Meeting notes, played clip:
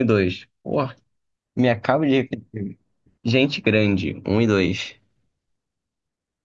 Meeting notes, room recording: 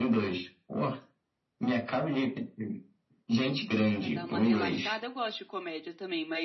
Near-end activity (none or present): present